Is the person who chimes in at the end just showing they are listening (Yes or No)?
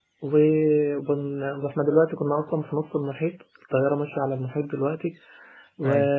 Yes